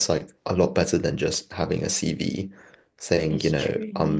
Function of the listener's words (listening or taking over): listening